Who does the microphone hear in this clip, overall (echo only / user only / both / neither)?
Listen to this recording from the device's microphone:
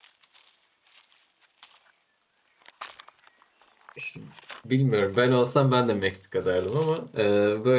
user only